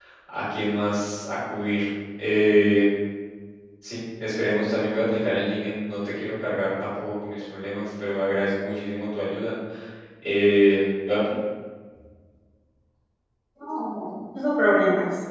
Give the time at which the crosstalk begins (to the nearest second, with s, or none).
none